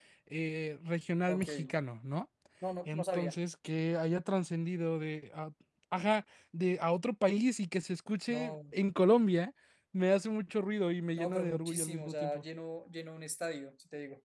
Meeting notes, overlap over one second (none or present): present